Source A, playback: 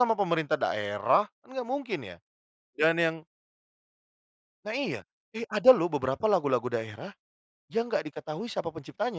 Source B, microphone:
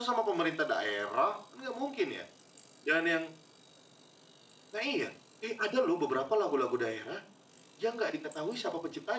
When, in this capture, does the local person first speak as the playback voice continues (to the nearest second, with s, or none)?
none